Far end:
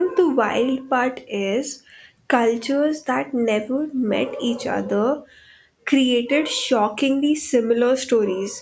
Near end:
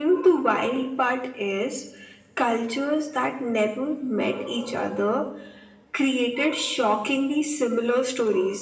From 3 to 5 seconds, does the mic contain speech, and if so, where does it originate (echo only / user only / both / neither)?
echo only